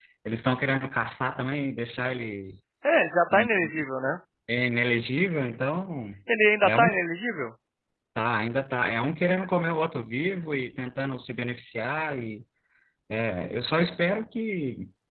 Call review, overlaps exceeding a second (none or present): none